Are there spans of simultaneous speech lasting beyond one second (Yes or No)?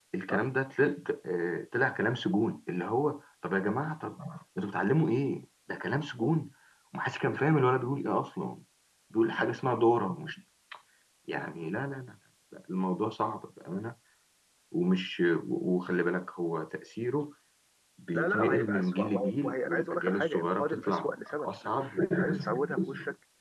Yes